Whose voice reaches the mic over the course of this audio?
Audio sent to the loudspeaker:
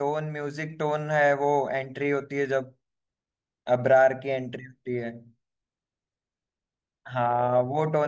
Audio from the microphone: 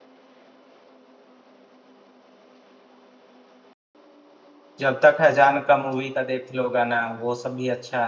user only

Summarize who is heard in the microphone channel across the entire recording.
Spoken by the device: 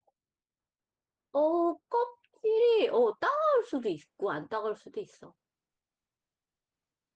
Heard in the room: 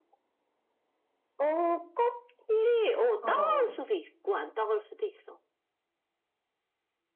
both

